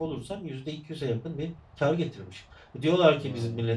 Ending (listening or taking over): listening